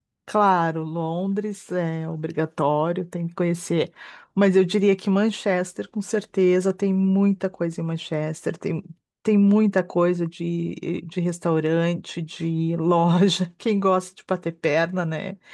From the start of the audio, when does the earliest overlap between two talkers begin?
none

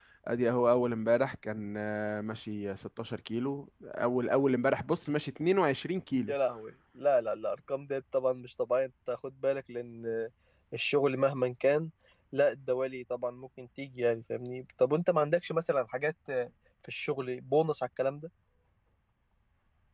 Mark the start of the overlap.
none

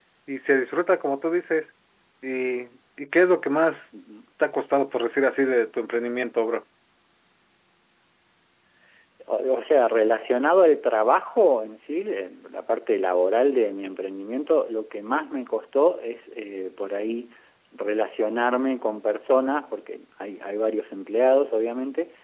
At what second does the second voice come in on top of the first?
none

